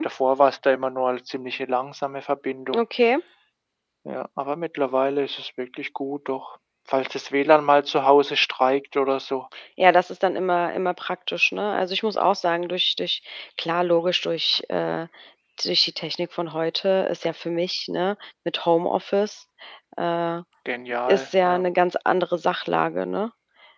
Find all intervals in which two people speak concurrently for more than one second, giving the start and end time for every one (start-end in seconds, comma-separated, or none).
none